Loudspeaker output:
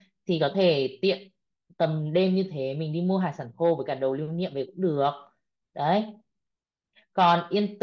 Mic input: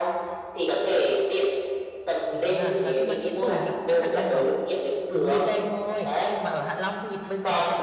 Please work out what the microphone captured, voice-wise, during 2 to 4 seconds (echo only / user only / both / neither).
both